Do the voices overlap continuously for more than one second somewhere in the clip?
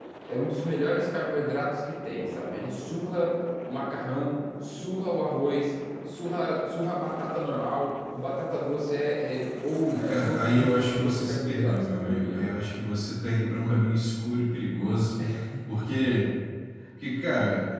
Yes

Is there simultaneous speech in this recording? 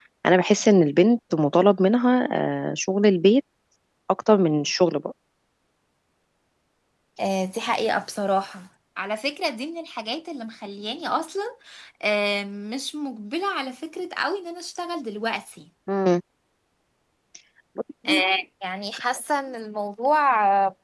No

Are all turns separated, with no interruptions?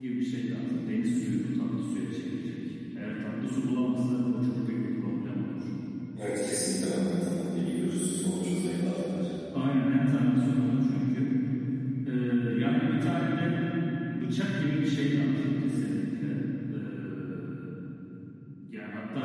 Yes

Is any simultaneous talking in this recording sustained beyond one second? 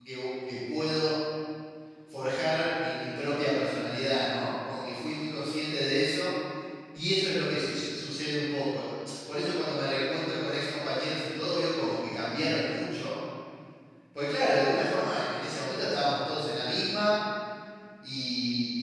No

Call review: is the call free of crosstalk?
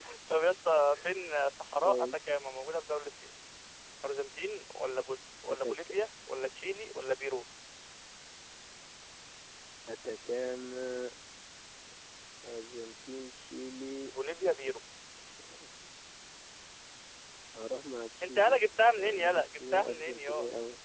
No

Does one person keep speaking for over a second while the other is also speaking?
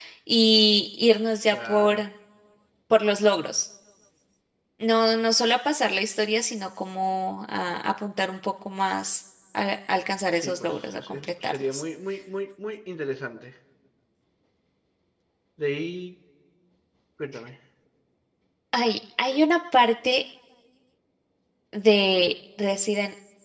Yes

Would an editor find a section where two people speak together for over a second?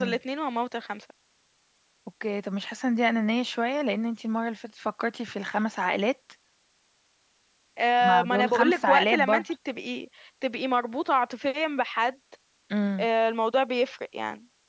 Yes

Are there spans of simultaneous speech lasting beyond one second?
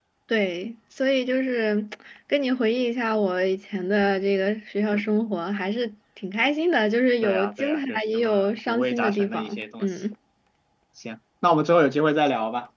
Yes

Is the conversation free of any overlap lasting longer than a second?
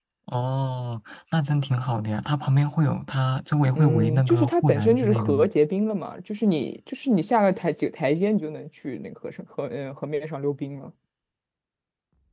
No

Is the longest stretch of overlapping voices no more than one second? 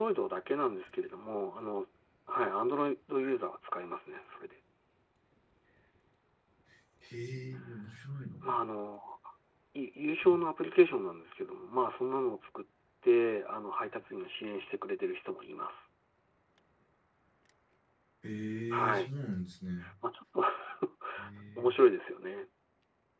Yes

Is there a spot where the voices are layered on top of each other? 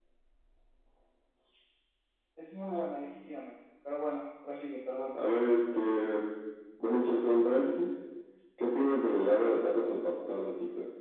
No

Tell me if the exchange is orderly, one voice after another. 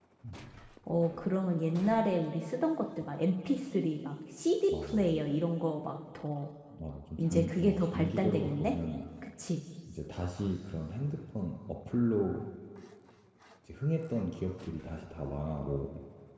No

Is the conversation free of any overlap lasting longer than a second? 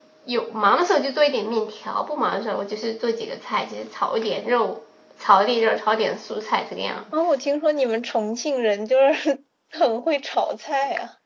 Yes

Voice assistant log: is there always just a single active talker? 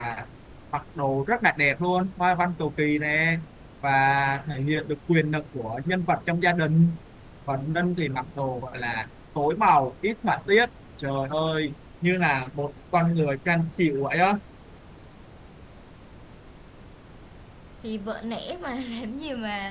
Yes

